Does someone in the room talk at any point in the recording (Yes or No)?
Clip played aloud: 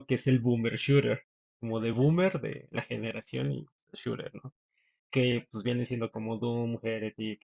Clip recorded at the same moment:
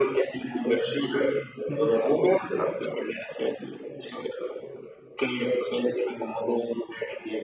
Yes